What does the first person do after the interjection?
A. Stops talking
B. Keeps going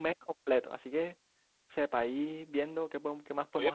A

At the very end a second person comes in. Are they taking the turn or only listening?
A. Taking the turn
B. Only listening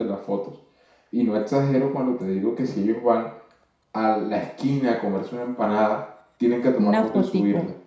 B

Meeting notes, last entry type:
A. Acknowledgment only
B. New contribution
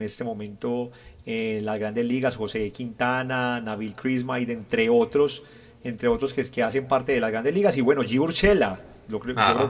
A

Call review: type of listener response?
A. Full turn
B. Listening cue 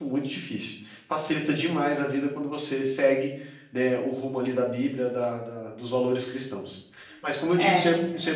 A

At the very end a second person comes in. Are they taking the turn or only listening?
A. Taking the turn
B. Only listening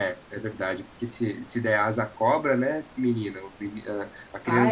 A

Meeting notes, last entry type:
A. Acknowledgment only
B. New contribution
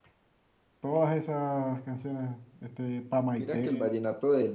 B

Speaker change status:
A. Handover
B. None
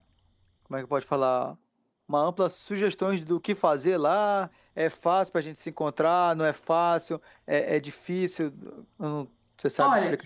A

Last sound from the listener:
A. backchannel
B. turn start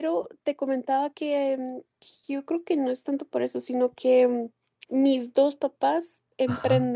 B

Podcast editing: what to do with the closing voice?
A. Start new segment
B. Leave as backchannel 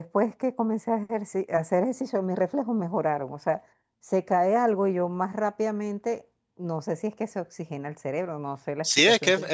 A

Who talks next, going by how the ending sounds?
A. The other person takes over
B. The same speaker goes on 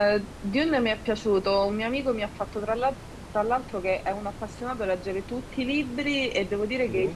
B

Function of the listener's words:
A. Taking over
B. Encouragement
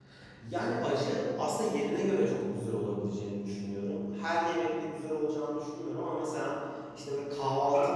B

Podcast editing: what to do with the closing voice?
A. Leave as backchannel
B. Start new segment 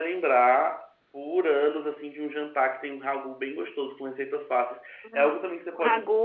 B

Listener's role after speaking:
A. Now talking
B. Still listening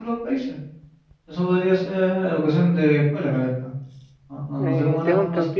A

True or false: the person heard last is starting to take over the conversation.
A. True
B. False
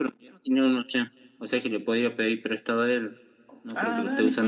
A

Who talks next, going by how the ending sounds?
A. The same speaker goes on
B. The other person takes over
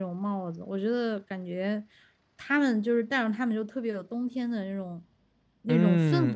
B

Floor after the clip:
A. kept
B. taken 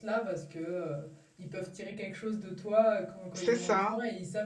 A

